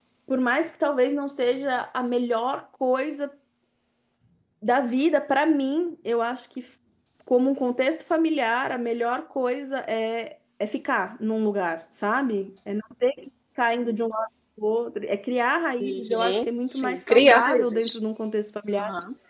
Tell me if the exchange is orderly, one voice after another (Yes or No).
No